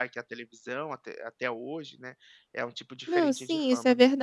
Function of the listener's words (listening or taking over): taking over